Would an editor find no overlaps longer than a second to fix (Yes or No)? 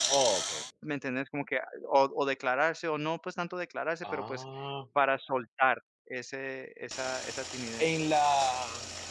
Yes